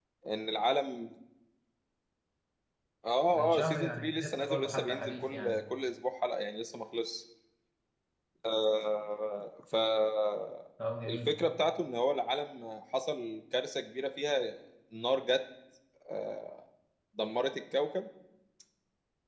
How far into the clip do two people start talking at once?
3.3 s

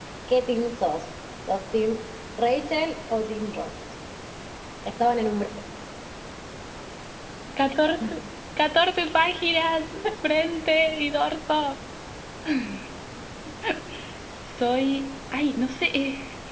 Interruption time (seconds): none

